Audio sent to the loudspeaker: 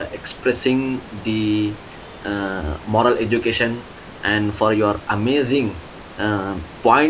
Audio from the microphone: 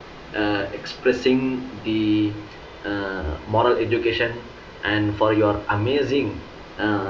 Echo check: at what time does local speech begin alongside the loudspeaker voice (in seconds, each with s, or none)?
none